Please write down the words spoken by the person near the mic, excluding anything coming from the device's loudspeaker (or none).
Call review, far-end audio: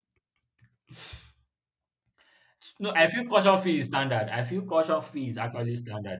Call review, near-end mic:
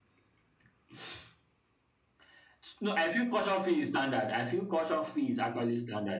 none